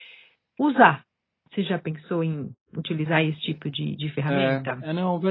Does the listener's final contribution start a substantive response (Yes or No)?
Yes